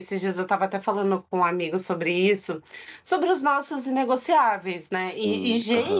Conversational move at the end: listening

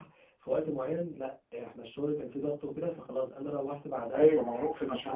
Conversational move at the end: taking over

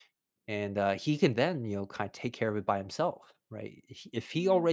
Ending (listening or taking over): listening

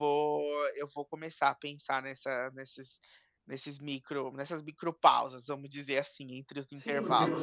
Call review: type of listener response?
taking over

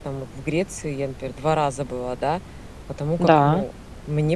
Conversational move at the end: listening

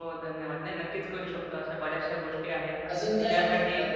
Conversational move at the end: taking over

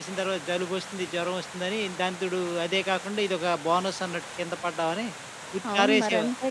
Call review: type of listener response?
taking over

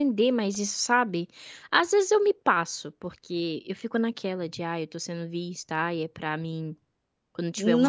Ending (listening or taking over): taking over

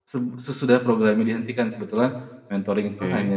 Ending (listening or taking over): listening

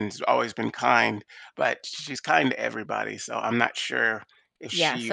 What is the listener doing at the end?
taking over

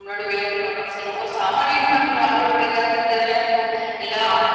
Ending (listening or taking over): listening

